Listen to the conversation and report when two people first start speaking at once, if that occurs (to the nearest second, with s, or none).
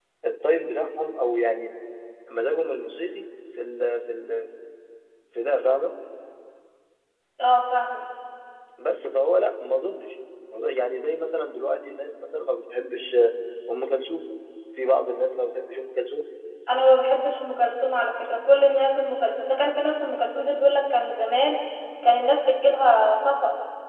none